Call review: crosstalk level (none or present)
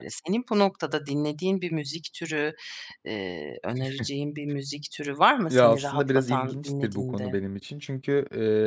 present